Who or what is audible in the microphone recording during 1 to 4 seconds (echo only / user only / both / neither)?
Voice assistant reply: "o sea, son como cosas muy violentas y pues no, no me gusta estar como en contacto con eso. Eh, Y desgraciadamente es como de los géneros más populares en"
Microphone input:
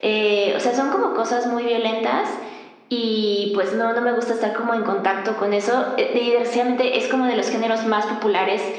echo only